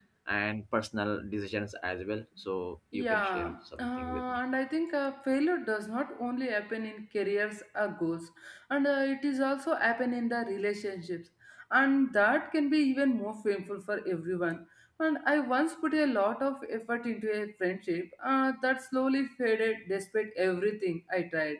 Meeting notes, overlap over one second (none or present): present